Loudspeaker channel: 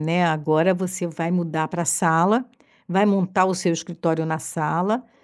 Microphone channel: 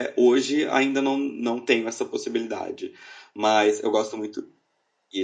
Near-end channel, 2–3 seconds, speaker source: user only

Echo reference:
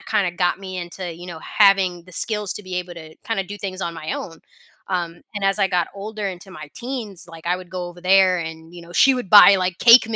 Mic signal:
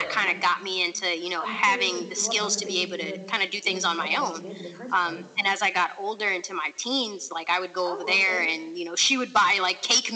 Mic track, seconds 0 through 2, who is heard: both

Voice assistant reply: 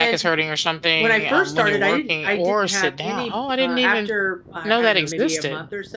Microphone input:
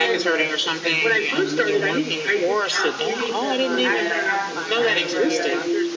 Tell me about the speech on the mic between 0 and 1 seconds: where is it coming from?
both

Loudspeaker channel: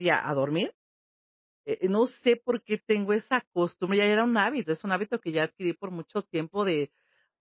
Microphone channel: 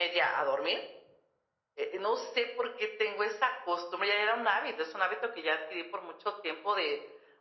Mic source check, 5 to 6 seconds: echo only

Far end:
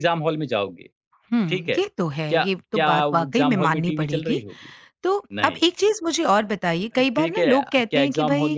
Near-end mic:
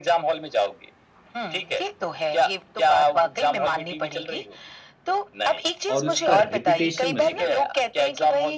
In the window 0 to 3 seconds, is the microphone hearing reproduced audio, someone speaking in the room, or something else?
echo only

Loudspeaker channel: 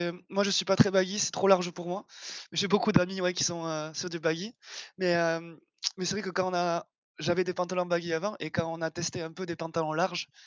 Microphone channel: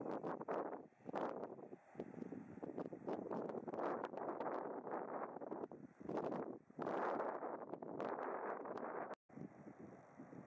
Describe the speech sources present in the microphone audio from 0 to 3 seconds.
neither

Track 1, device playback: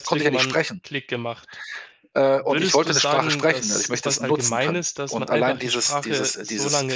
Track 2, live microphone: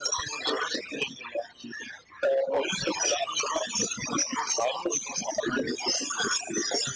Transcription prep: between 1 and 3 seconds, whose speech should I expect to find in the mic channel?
echo only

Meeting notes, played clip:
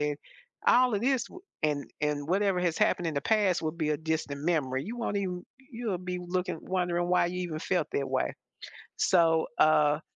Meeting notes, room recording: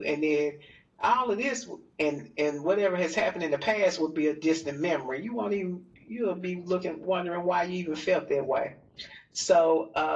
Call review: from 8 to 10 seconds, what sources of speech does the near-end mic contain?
echo only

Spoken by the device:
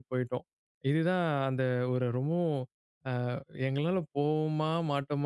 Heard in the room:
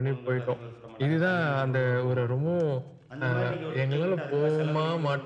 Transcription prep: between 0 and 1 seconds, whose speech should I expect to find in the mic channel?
both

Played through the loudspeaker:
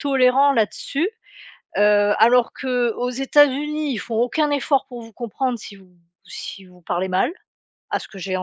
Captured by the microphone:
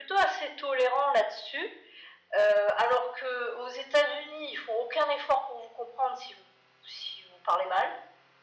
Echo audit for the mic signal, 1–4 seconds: echo only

